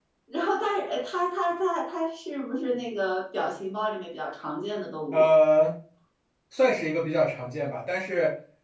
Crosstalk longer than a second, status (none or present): none